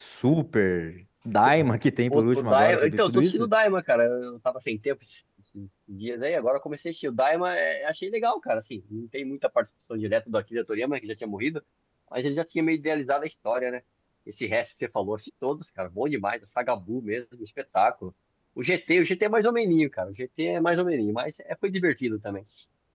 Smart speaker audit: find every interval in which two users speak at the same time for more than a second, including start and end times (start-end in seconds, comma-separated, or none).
2.1-3.5